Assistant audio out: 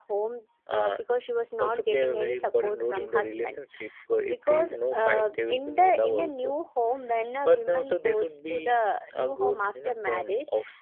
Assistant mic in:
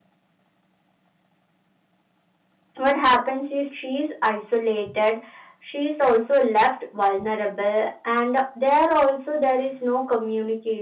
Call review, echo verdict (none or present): none